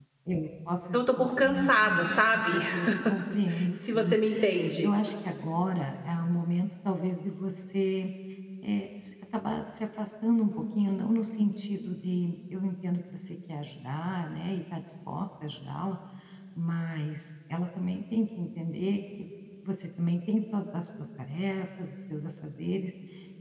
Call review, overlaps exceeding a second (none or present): present